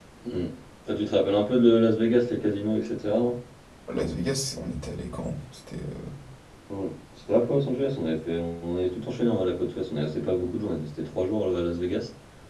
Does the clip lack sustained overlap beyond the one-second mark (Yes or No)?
Yes